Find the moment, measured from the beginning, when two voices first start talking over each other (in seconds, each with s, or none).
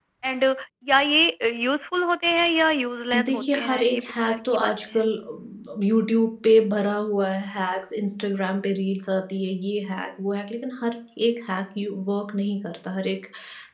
3.1 s